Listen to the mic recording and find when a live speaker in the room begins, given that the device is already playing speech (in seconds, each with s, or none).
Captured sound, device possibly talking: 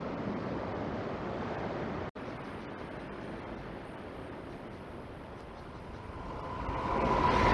none